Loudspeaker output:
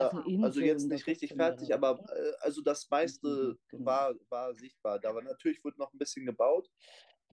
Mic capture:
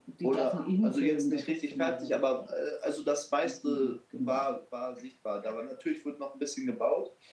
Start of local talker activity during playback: none

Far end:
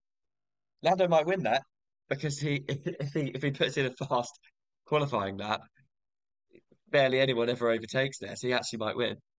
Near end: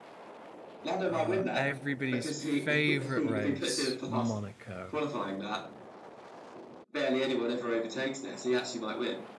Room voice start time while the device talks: 1.0 s

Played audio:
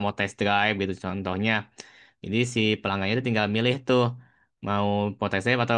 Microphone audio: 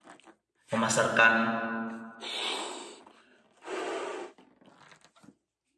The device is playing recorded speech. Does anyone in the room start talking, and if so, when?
0.7 s

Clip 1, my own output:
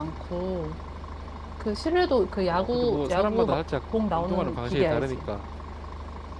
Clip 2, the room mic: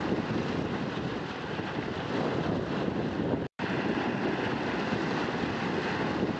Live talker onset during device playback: none

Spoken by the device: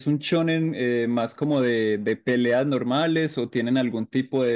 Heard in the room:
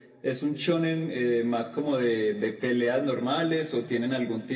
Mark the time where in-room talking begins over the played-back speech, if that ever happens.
none

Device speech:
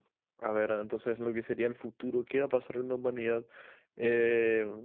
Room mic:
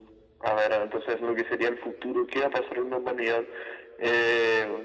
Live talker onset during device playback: none

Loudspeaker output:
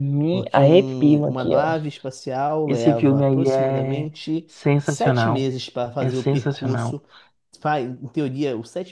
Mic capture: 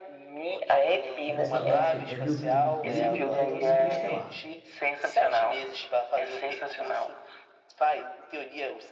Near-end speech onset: 1.2 s

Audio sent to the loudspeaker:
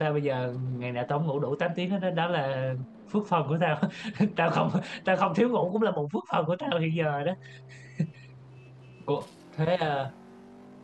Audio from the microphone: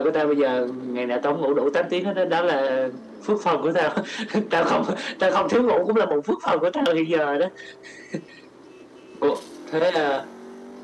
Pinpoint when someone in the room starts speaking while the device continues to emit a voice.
none

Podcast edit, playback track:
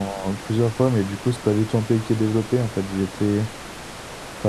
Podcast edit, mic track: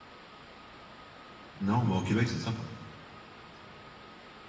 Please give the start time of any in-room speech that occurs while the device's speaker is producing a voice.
1.6 s

